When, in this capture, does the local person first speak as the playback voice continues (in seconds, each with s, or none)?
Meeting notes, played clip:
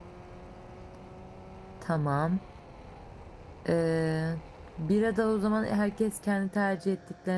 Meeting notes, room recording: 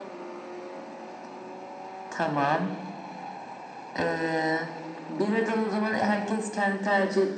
none